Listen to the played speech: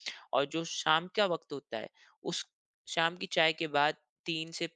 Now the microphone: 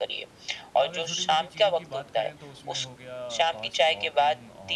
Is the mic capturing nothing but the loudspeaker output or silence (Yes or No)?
No